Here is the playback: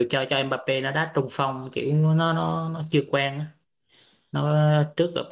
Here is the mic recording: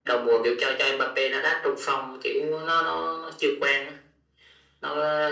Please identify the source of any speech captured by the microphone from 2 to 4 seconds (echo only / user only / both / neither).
echo only